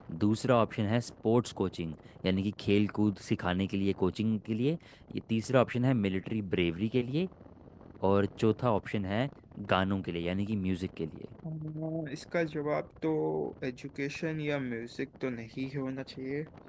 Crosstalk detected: No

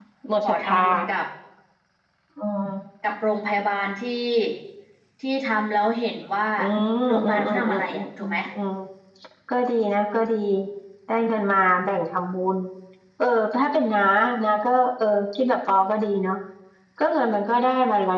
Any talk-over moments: Yes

